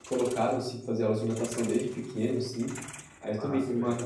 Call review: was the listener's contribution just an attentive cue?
Yes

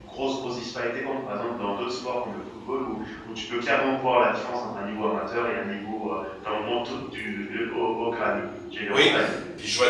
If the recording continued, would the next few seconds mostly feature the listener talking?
Yes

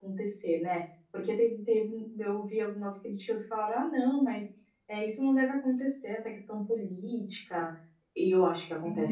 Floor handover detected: Yes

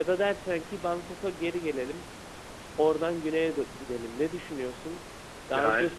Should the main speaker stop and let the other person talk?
No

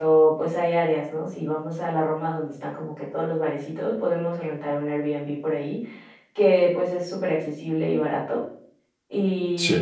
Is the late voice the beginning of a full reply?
No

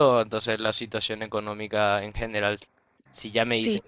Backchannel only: Yes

